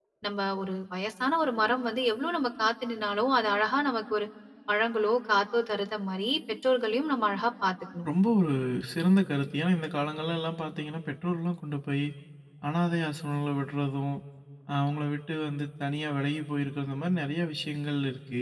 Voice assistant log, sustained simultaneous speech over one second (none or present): none